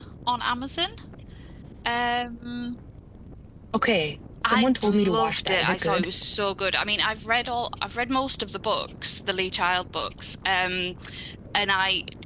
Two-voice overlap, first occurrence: 4.4 s

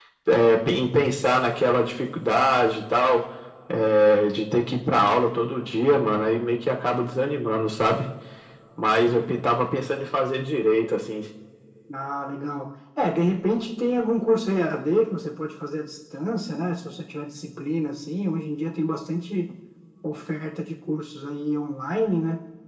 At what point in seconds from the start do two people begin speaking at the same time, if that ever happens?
none

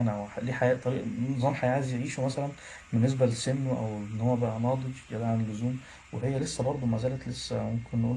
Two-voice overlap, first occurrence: none

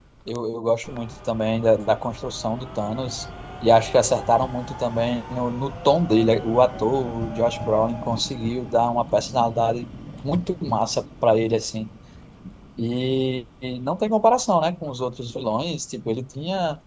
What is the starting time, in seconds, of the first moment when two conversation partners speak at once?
none

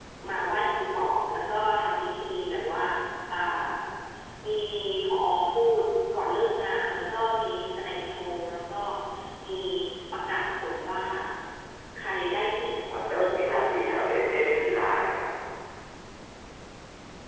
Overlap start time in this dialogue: 12.9 s

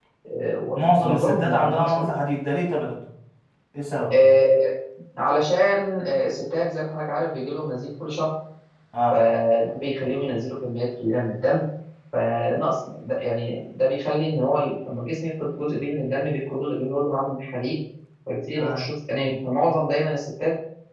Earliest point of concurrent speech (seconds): 0.7 s

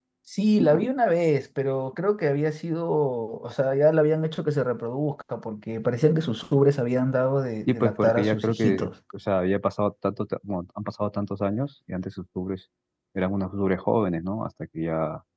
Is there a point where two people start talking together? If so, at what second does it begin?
7.7 s

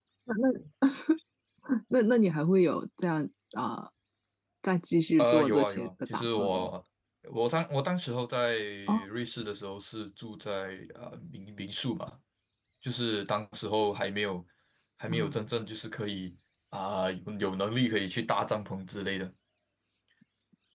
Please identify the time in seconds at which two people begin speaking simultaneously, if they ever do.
5.2 s

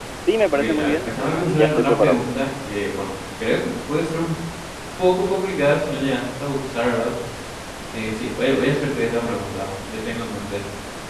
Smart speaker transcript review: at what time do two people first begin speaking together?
0.5 s

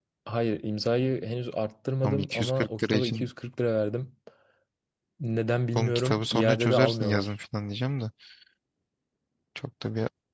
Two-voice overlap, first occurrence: 2.0 s

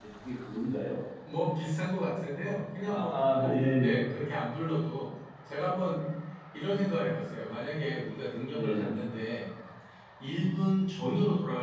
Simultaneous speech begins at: 2.8 s

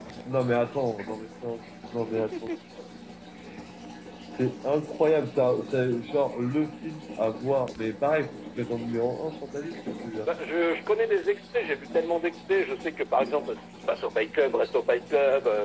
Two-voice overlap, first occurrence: none

